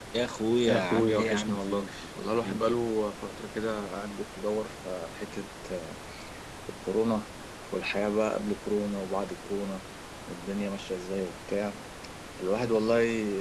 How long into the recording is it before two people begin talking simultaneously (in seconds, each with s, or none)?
0.7 s